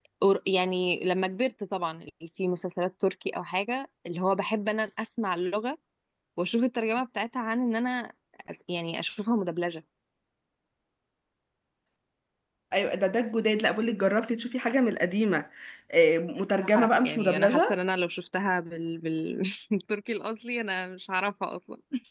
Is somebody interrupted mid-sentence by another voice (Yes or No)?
Yes